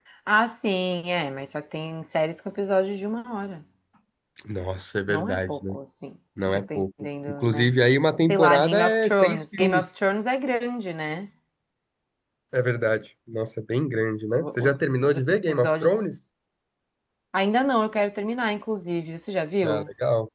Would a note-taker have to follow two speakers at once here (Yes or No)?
Yes